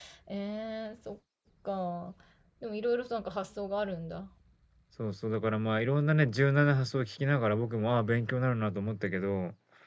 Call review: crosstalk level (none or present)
none